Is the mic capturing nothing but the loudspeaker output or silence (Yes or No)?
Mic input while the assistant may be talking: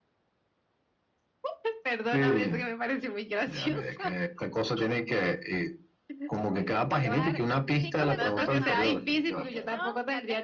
No